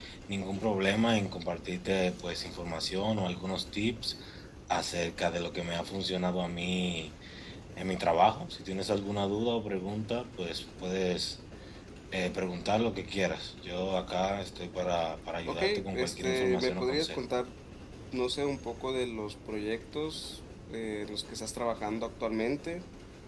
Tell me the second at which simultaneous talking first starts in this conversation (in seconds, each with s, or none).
15.4 s